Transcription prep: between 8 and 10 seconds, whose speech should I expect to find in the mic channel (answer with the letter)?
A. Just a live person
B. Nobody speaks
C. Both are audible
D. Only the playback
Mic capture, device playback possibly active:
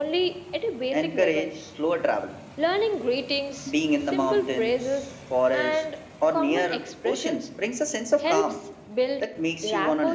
D